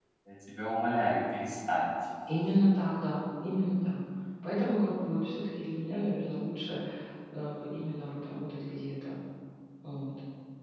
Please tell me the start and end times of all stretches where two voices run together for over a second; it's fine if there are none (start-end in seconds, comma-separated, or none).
none